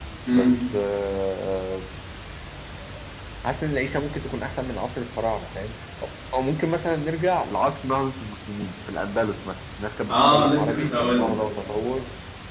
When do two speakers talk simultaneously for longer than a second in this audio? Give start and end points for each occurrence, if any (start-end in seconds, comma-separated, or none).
10.1-11.7